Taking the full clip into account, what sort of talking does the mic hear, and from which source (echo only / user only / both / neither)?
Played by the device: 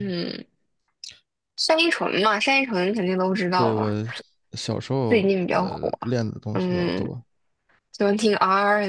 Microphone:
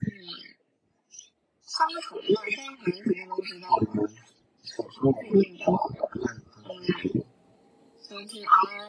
echo only